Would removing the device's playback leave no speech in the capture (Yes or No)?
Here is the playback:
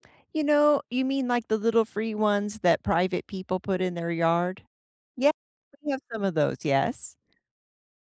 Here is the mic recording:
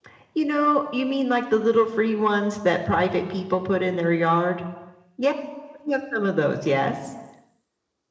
Yes